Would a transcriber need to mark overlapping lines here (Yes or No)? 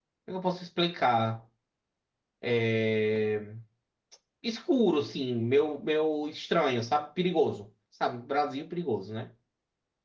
No